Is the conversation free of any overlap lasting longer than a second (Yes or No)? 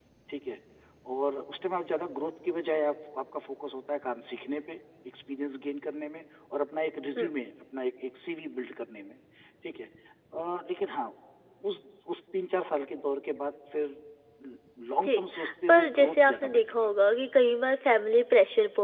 No